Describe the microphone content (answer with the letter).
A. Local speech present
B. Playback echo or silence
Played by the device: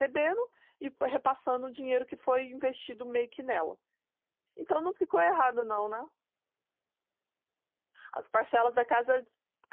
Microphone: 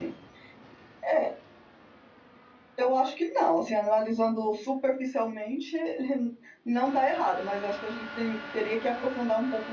A